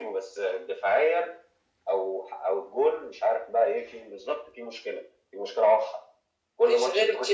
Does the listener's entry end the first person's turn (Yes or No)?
Yes